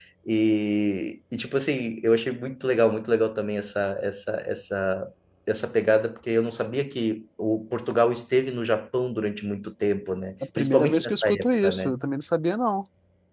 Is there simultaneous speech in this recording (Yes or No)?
Yes